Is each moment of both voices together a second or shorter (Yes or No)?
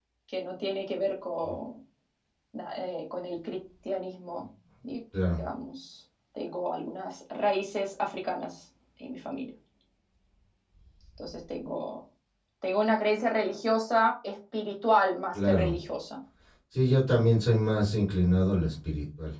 Yes